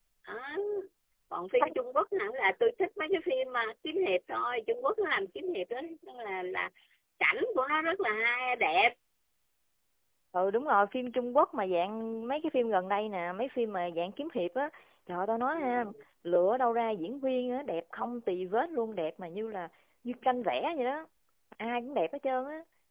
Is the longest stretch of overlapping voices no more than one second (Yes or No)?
Yes